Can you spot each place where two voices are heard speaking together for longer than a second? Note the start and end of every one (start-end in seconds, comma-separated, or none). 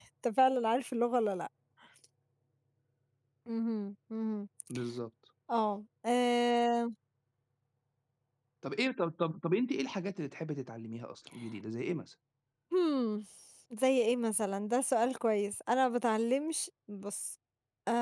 none